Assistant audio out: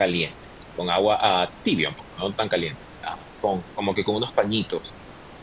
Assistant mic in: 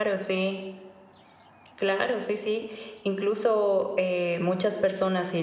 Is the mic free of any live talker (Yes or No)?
No